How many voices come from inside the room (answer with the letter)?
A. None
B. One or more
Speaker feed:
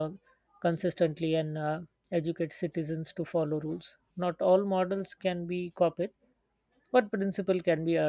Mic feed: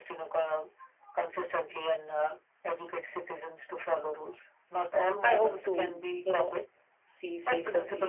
B